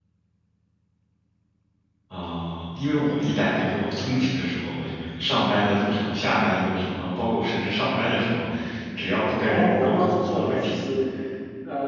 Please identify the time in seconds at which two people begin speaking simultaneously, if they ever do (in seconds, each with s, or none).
9.4 s